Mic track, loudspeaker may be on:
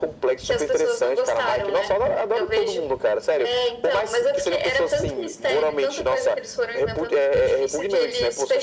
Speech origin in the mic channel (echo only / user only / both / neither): echo only